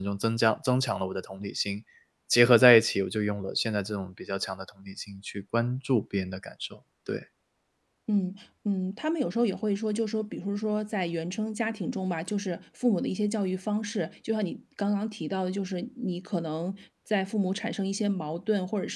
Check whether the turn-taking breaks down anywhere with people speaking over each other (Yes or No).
No